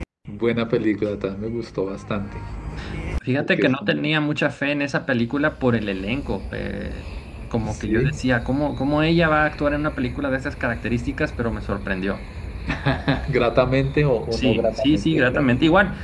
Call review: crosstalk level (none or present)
present